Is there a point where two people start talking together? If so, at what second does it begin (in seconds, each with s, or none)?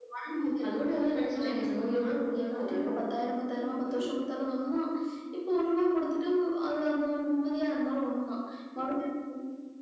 1.4 s